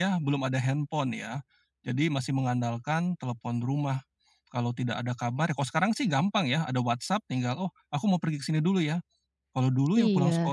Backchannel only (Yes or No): Yes